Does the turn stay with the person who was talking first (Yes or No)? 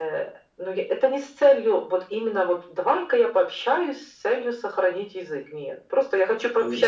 No